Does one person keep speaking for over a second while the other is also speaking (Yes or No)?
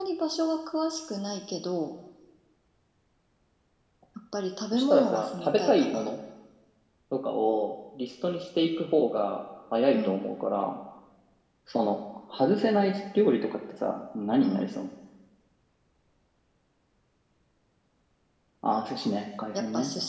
Yes